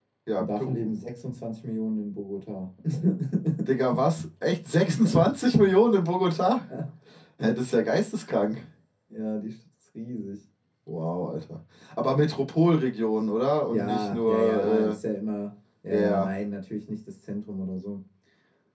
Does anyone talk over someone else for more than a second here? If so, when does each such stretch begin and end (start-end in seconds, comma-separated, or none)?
13.7-15.0